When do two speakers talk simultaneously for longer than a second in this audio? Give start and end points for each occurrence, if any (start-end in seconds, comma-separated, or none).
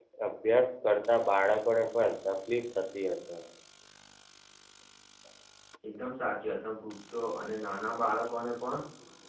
none